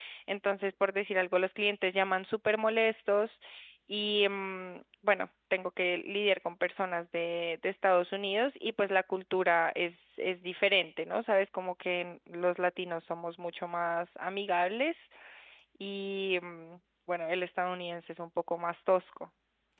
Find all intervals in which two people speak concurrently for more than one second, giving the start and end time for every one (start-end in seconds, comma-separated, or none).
none